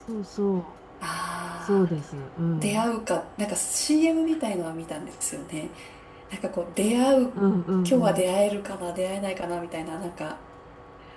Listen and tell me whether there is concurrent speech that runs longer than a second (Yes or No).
No